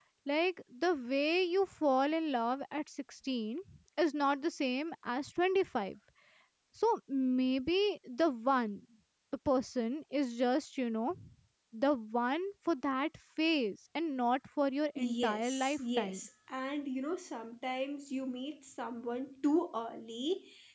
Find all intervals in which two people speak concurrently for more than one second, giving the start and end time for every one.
15.0-16.3

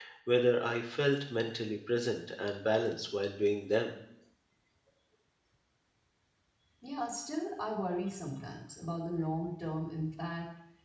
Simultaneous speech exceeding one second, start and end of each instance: none

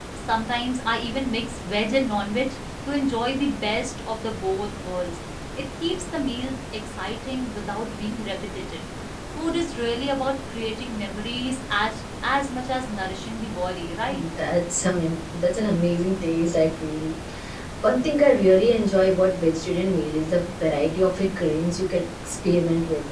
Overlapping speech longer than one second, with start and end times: none

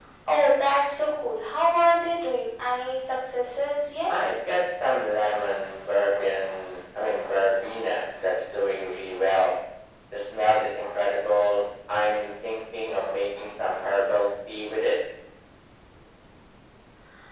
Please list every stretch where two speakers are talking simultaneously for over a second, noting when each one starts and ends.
none

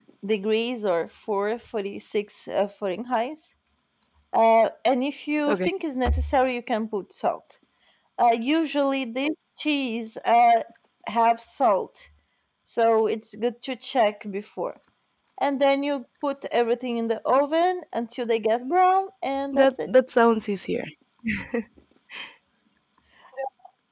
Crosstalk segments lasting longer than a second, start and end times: none

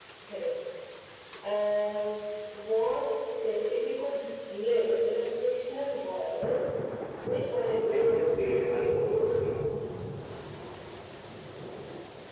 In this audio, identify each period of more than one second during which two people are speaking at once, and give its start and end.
none

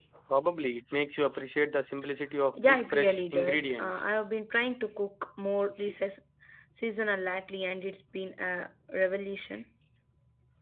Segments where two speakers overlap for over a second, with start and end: 2.6-4.0

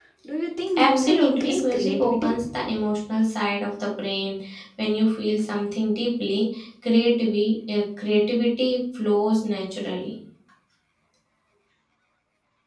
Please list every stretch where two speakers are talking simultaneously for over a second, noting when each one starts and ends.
0.8-2.3

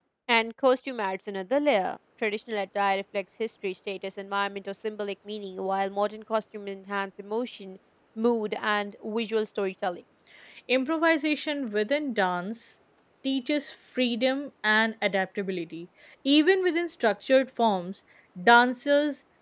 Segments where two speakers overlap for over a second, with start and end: none

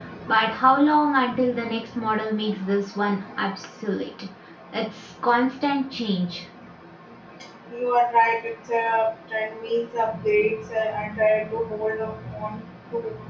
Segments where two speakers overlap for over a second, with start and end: none

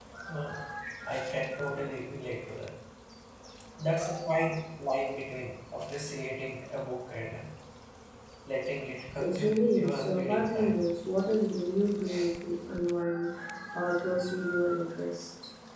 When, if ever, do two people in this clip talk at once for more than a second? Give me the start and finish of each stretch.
9.2-10.8

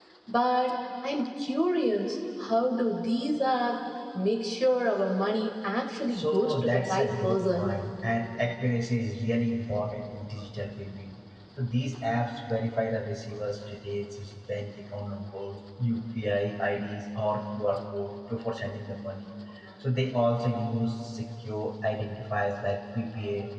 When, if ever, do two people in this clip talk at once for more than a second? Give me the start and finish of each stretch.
6.1-7.7

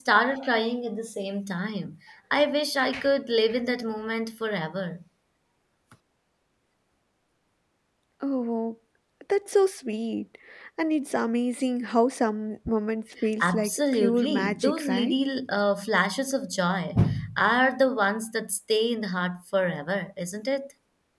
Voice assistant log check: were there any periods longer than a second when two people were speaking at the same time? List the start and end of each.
13.4-15.2

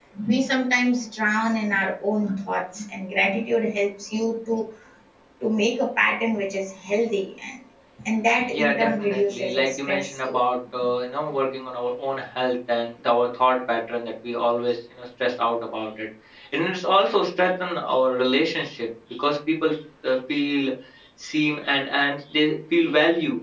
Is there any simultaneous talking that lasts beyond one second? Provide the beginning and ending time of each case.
8.5-10.4

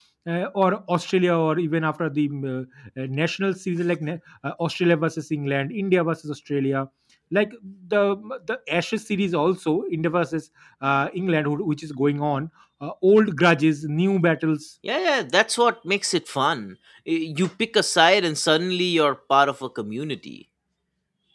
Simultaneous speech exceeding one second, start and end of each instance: none

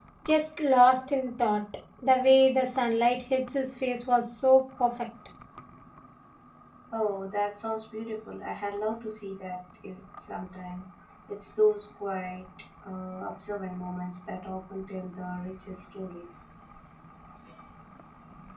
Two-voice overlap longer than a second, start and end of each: none

